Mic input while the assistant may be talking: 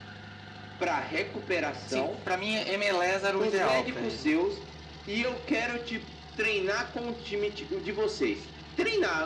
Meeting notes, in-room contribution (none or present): present